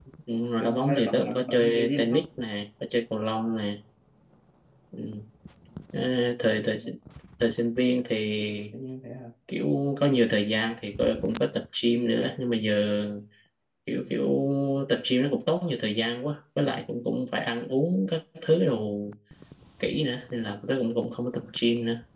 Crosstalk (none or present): present